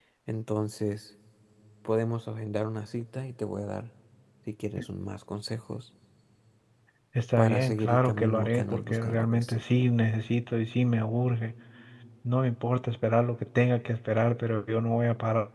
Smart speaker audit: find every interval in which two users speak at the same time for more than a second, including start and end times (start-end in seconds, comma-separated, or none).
7.4-9.6